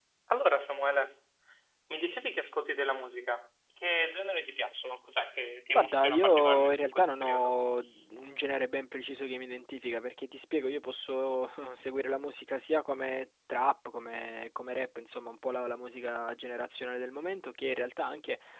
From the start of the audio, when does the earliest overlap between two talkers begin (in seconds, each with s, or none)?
5.8 s